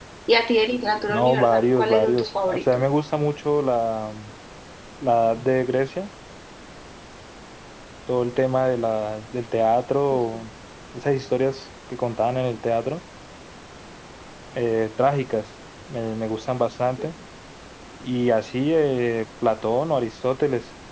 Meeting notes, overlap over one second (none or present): present